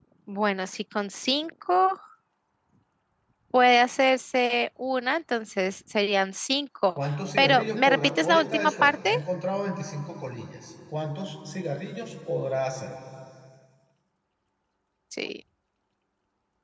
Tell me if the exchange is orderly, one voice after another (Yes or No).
No